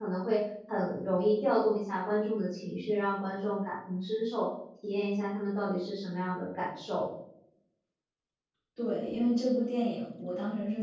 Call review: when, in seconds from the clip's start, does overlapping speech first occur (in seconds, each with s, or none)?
none